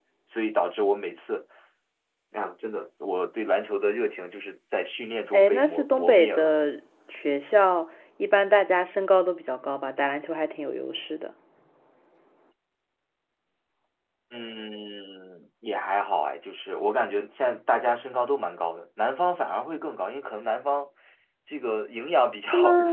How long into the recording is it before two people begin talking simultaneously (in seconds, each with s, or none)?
5.3 s